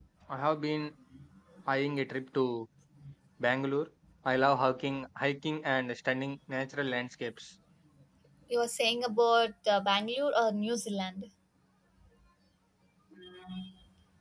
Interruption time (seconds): none

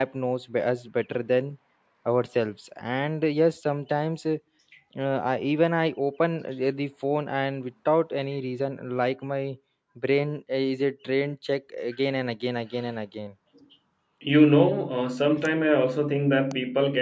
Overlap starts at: none

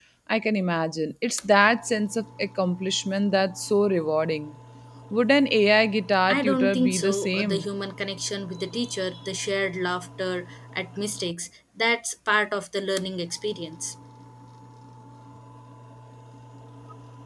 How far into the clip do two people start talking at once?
6.3 s

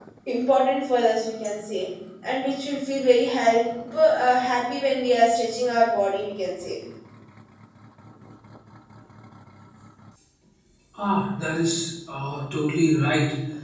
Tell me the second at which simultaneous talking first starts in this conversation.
none

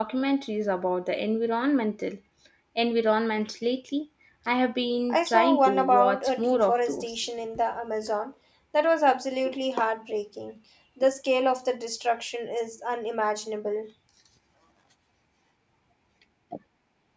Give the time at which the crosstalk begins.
5.1 s

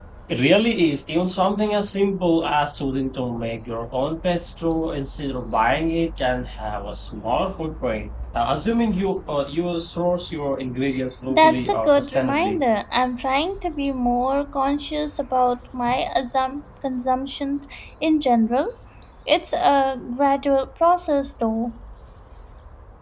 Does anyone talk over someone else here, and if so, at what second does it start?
11.3 s

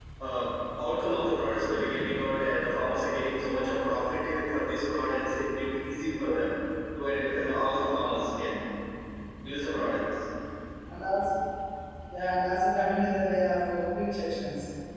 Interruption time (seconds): none

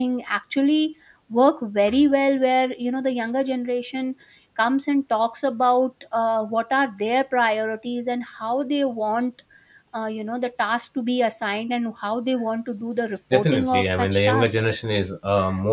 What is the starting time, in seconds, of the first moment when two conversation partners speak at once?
13.3 s

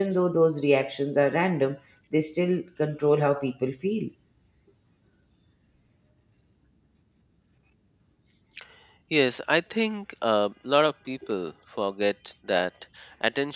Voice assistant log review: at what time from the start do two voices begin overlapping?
none

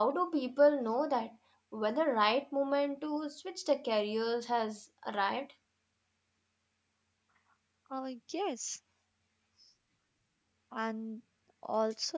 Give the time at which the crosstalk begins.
none

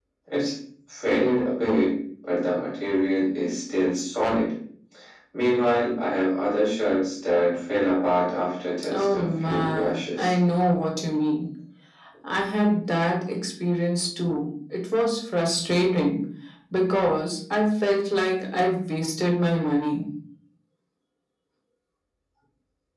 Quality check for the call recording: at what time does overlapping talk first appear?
8.8 s

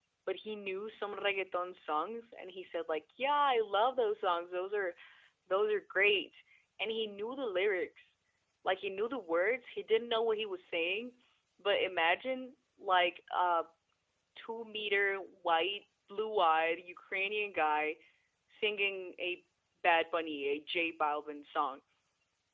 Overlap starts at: none

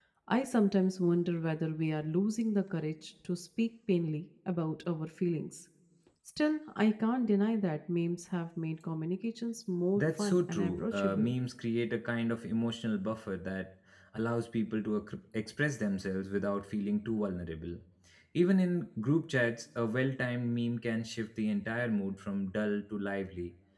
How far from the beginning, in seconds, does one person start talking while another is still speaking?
10.0 s

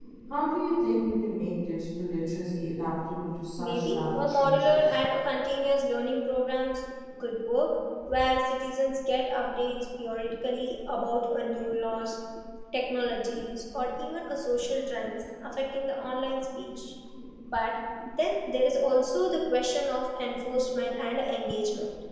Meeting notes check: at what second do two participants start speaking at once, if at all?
3.6 s

